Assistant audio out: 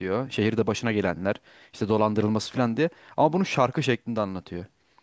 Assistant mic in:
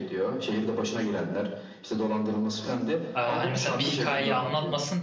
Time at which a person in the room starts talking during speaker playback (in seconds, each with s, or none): 3.1 s